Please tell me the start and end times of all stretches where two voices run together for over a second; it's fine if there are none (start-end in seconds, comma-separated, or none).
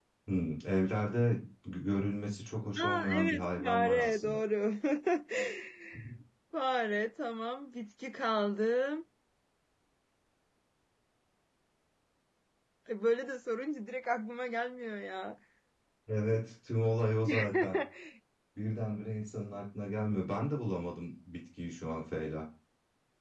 2.8-4.4